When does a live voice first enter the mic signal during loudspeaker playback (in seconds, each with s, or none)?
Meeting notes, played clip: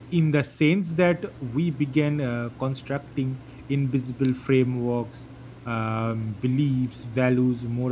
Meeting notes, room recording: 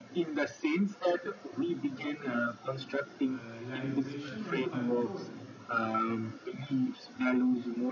3.2 s